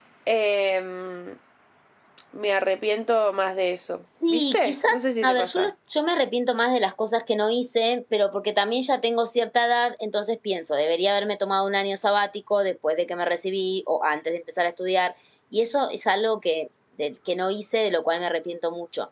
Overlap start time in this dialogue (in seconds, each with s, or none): 4.2 s